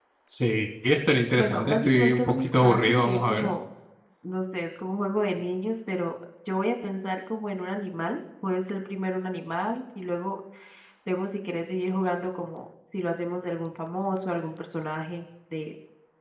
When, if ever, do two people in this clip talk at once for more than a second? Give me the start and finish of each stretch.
1.4-3.5

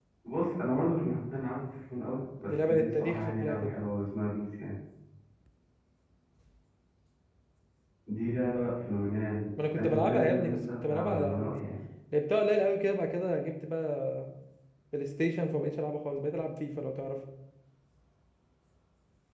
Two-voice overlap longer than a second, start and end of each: 2.5-3.7, 9.8-11.6

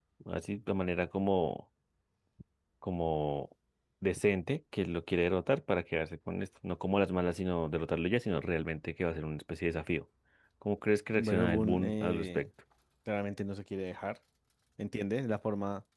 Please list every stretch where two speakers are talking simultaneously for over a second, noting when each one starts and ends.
11.2-12.5

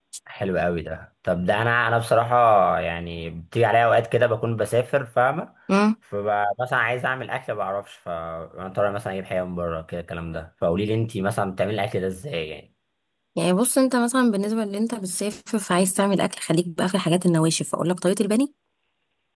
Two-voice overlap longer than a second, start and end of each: none

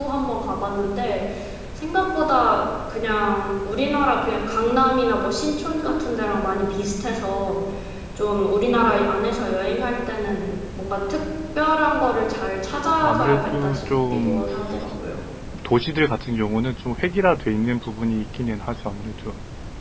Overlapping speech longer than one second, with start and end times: 13.0-14.4

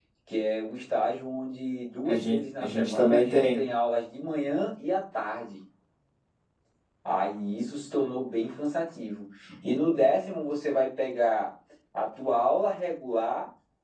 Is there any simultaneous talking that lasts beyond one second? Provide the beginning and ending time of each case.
2.1-3.6

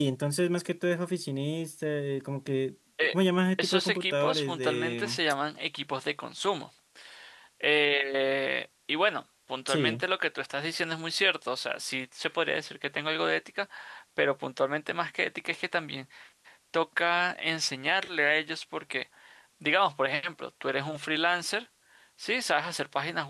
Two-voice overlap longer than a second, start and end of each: 3.6-5.2

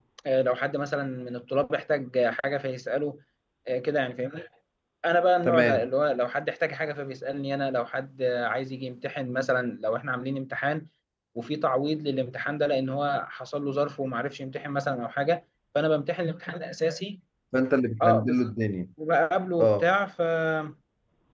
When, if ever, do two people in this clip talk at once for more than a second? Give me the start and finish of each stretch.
none

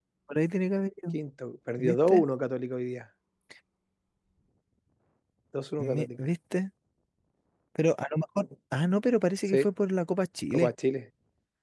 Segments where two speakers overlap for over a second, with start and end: none

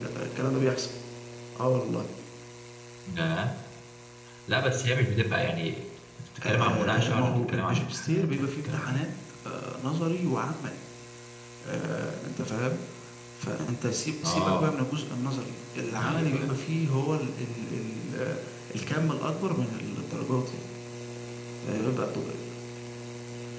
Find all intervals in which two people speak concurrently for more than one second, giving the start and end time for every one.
6.4-9.0

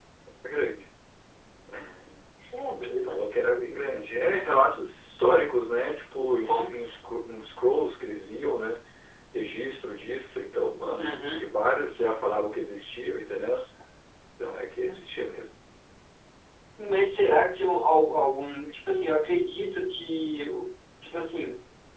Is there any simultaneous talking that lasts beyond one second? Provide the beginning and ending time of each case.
none

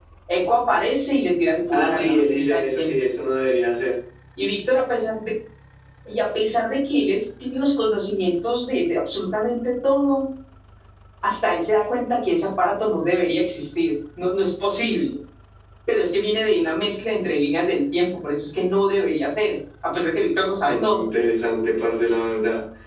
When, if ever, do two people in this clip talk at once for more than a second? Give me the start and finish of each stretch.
1.7-2.9

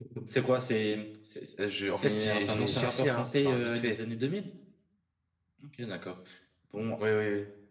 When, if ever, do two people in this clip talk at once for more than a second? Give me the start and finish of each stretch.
1.9-4.0

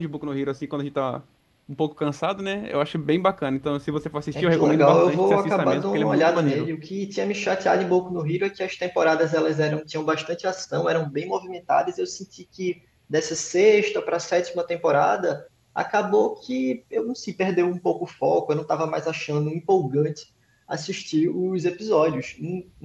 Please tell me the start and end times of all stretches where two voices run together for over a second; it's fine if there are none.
4.4-6.7

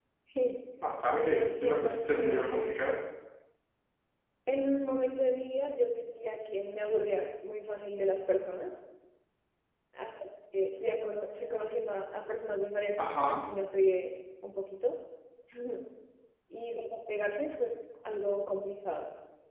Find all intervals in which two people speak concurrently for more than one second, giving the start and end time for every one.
1.1-2.8

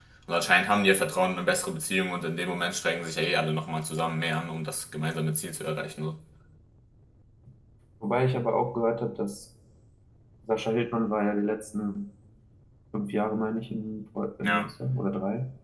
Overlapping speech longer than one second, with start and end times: none

